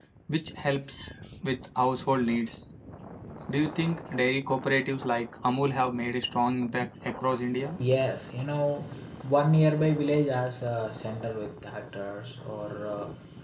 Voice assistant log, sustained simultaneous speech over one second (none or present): none